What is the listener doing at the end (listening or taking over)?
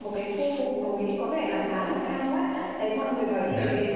listening